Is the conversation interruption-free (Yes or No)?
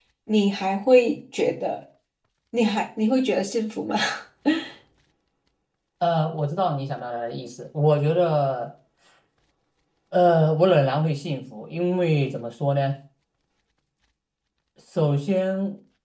Yes